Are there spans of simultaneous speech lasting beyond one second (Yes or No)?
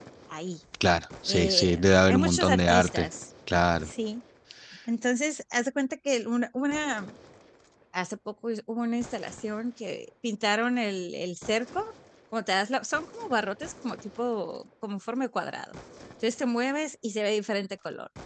Yes